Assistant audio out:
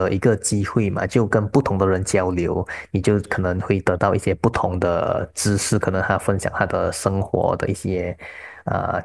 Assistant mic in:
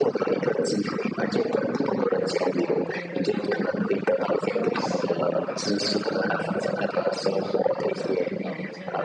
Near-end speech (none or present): present